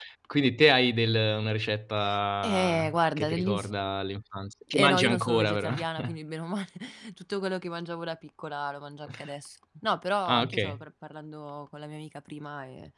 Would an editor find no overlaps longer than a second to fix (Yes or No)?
No